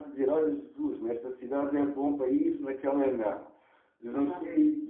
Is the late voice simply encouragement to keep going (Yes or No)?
Yes